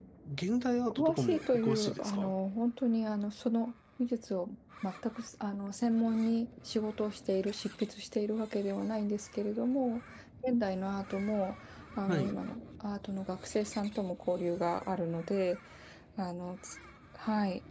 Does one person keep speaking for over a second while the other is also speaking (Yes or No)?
Yes